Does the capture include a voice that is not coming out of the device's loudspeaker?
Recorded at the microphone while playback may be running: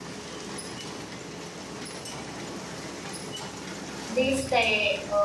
Yes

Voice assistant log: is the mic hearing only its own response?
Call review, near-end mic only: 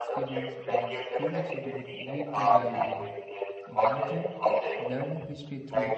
No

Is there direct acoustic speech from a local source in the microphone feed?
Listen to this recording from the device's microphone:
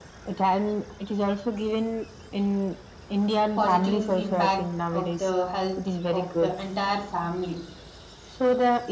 Yes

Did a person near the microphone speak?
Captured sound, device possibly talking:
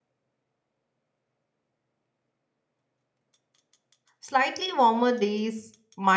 Yes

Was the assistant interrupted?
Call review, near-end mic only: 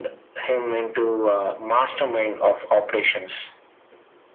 No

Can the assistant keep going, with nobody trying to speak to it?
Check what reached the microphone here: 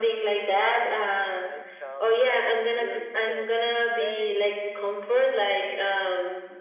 No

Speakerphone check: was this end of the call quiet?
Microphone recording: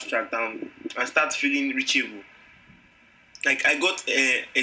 Yes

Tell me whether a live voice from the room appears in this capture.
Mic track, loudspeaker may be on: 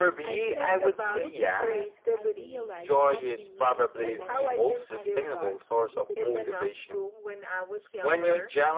Yes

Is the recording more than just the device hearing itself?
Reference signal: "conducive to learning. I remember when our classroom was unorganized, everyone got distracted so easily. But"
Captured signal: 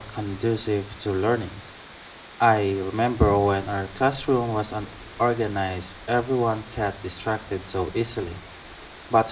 No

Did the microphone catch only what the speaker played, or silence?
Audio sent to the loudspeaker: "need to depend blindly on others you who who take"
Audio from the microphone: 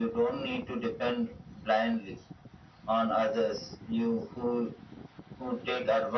Yes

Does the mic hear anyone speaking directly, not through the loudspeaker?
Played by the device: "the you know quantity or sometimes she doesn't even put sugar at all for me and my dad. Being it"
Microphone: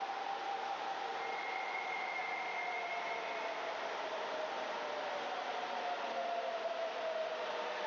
No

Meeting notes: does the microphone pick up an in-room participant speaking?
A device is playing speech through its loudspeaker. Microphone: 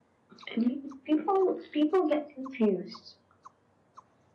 No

